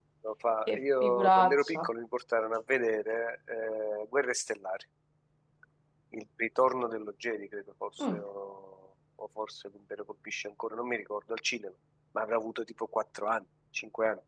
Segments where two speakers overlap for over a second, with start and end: 0.7-1.9

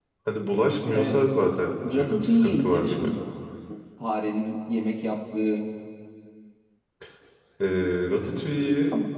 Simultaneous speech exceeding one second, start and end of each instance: 1.8-3.1

